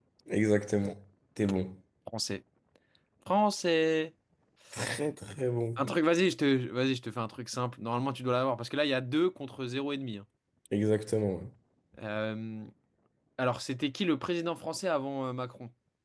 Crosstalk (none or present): none